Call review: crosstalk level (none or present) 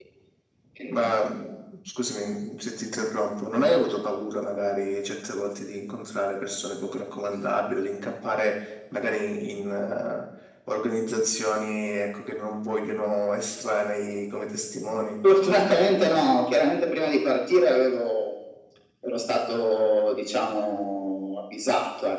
none